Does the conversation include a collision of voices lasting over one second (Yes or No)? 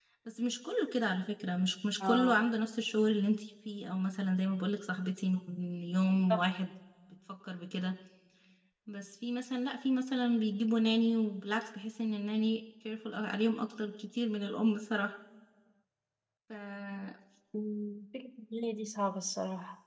No